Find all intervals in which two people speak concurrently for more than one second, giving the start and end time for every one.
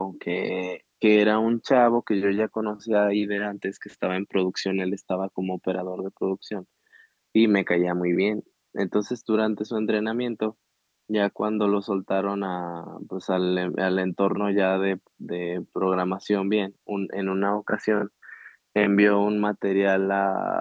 none

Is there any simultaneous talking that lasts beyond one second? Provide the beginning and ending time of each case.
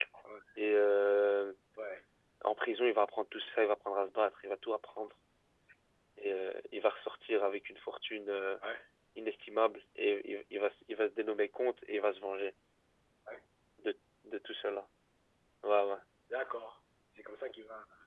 none

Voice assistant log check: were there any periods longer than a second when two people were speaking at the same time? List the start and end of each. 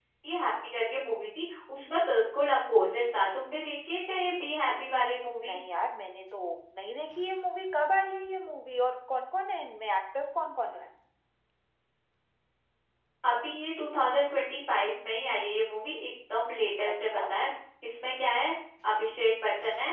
none

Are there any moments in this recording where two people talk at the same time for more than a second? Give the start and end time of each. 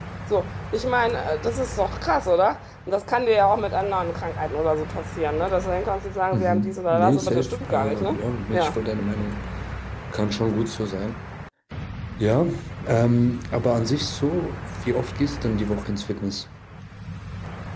6.3-8.1

